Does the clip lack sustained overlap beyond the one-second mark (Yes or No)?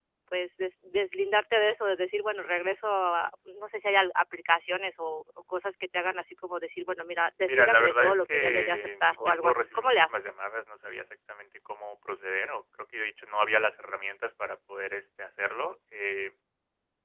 No